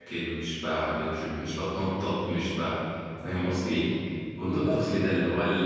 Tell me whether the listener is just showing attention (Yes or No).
Yes